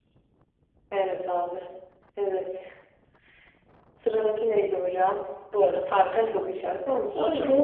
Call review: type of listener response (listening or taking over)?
listening